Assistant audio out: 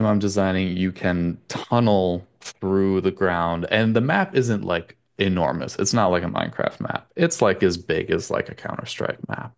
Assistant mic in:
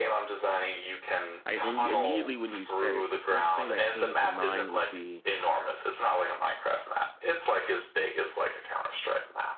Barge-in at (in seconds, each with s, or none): 1.5 s